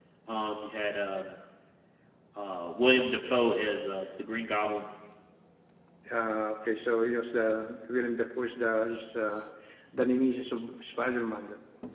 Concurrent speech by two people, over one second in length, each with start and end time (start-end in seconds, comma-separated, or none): none